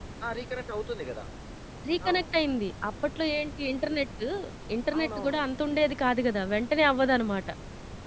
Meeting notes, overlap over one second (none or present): none